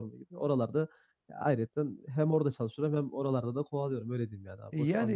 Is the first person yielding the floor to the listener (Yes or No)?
Yes